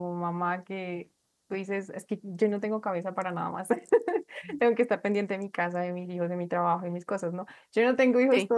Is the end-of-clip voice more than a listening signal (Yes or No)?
No